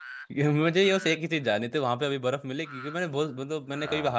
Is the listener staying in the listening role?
Yes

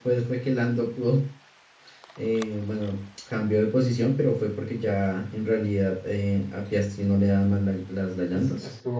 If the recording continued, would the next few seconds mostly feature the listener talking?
Yes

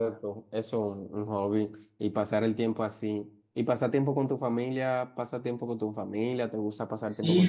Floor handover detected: Yes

